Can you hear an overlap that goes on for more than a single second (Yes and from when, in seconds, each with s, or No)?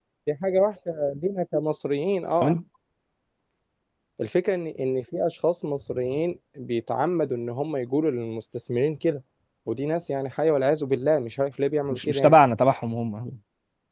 No